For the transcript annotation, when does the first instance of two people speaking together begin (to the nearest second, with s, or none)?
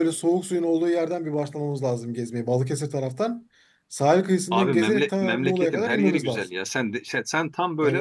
5 s